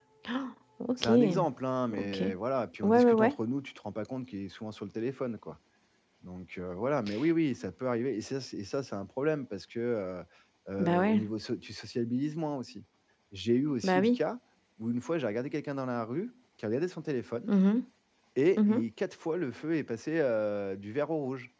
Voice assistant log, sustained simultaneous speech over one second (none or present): none